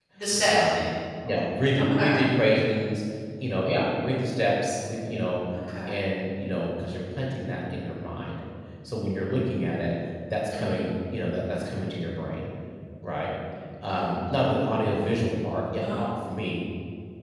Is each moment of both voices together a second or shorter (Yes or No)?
Yes